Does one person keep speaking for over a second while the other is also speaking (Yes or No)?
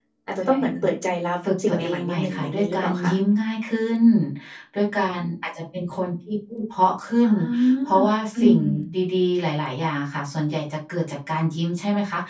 Yes